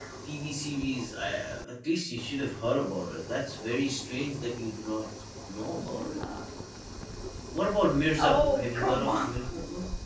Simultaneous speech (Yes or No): Yes